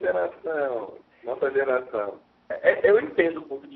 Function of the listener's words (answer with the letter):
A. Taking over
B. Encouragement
B